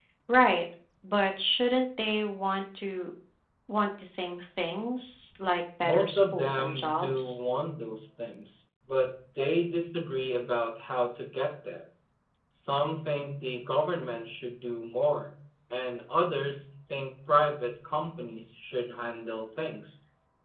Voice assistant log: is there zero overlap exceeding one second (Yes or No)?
No